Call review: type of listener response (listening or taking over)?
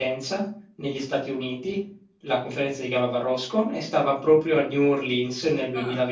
listening